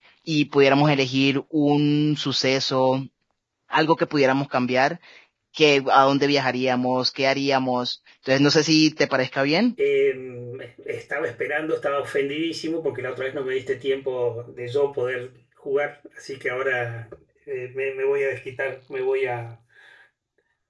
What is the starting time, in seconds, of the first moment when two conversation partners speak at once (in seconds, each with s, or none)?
none